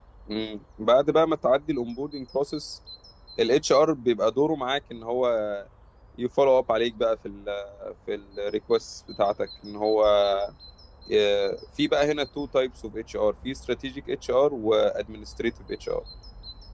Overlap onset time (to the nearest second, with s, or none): none